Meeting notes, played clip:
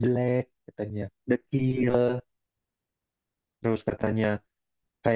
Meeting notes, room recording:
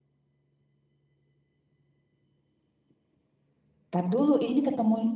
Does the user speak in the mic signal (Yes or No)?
Yes